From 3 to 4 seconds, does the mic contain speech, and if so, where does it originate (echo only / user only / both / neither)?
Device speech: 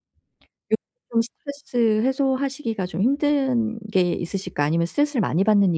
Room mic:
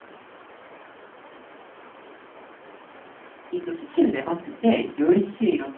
user only